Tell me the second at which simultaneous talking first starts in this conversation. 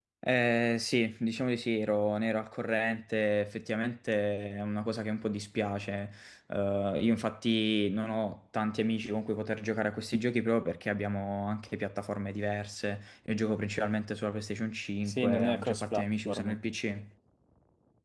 15.1 s

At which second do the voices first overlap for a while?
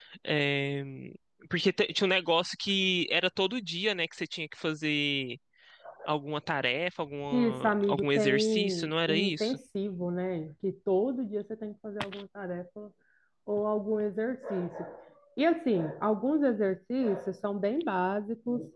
7.3 s

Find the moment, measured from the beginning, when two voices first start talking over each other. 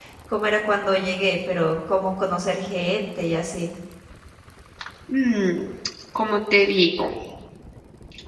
none

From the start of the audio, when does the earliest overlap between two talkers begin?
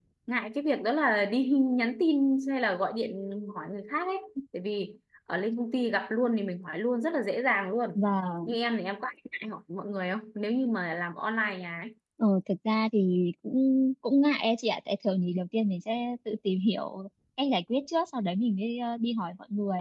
none

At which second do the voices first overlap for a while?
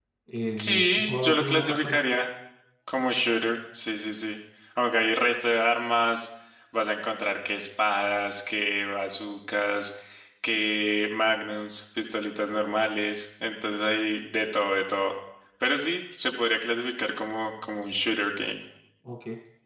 0.6 s

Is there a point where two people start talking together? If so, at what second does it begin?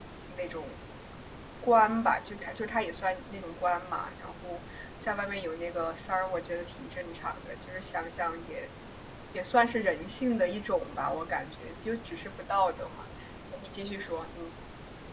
none

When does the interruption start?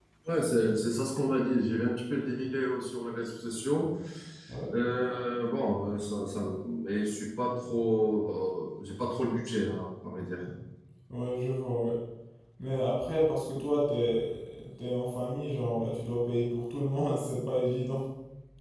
none

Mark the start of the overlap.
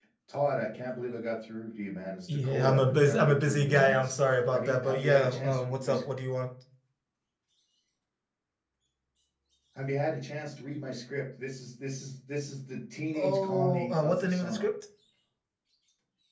2.3 s

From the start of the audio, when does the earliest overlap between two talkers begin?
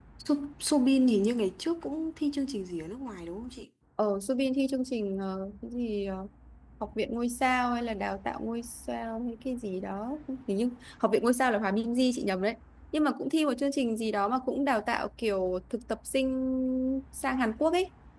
none

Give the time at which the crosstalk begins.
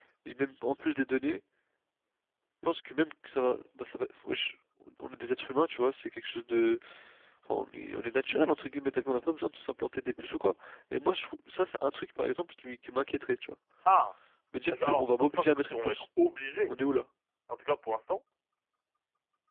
14.7 s

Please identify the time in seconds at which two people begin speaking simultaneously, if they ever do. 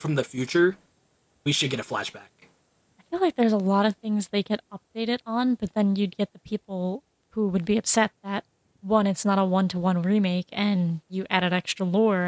none

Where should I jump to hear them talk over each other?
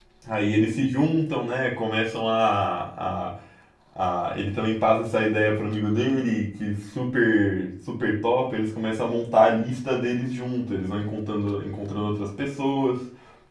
none

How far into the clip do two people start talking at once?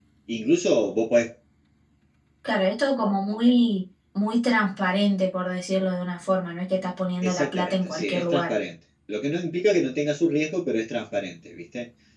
7.2 s

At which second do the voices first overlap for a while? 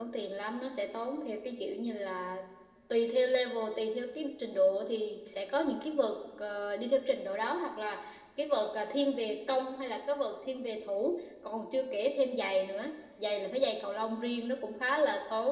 none

